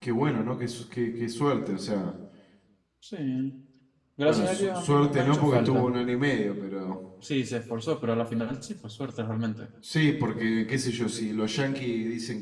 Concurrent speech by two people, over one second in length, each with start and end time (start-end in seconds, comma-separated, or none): 4.2-5.9